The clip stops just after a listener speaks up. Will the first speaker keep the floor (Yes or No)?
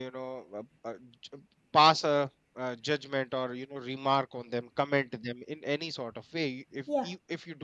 Yes